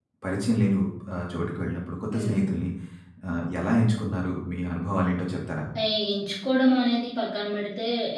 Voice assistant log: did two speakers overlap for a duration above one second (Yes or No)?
No